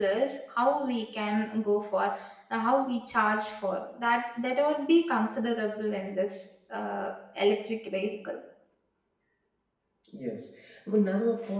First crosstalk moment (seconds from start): none

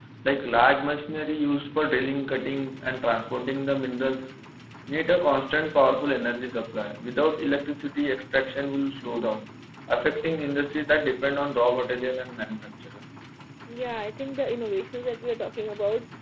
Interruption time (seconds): none

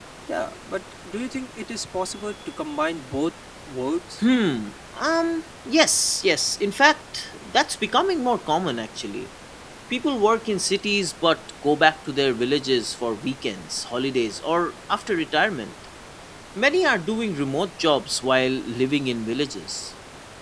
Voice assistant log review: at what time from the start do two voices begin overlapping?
none

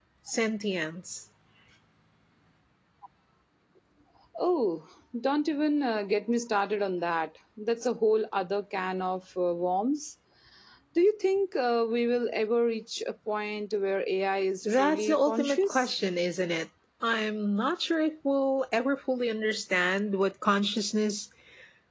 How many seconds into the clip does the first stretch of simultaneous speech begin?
14.7 s

